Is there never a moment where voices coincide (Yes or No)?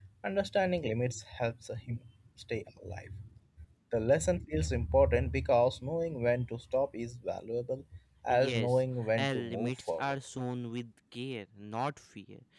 No